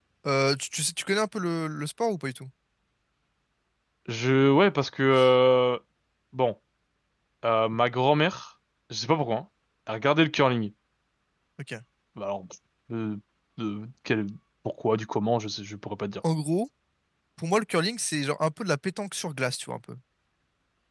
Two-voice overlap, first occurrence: none

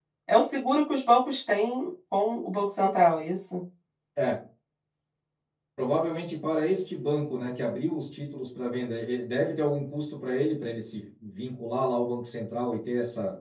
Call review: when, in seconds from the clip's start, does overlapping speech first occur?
none

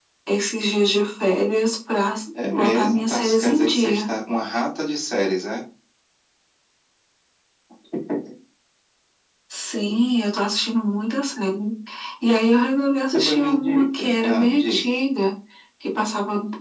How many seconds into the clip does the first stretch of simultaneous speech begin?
2 s

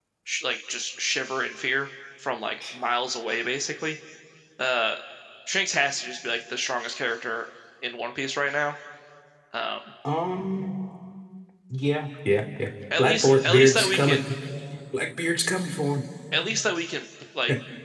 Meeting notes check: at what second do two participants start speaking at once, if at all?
13 s

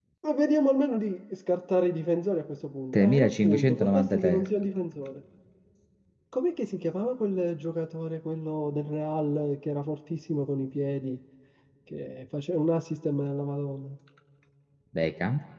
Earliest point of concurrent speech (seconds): 3 s

